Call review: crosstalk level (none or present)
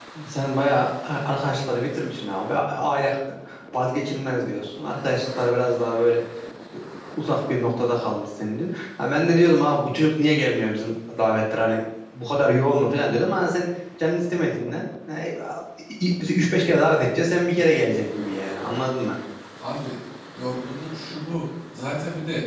none